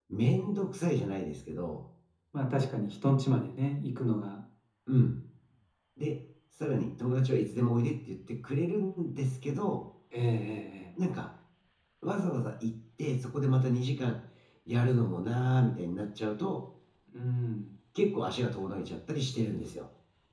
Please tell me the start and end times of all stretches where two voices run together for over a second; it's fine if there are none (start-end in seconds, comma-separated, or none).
none